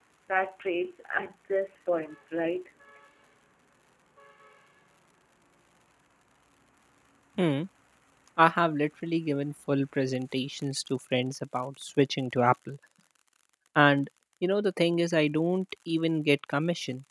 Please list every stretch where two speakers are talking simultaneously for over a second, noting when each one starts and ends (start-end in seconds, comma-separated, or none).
none